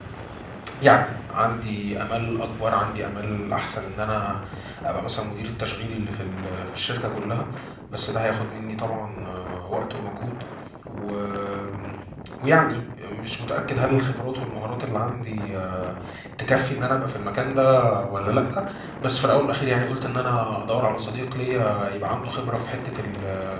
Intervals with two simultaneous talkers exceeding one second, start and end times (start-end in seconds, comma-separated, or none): none